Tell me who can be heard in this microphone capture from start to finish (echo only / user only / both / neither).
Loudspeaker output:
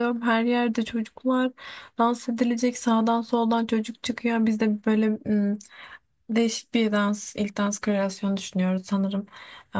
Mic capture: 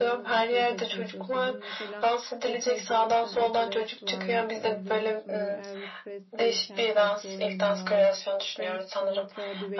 both